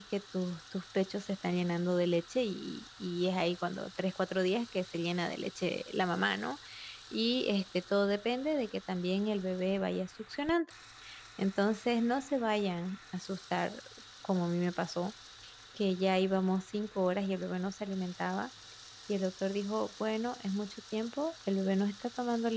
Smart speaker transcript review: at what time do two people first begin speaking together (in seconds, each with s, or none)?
none